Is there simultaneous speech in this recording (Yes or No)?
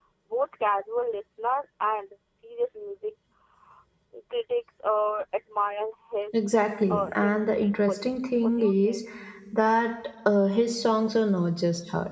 Yes